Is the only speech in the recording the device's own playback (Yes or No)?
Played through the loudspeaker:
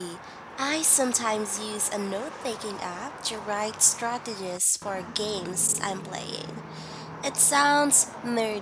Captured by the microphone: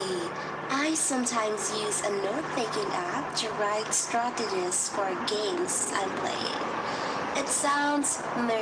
Yes